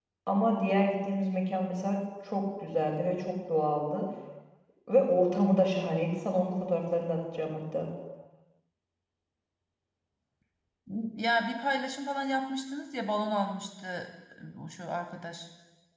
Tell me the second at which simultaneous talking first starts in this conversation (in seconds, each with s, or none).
none